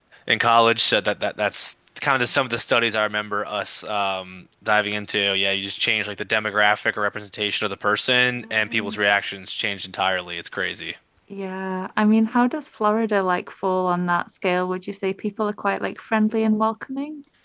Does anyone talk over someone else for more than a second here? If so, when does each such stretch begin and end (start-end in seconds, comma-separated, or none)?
none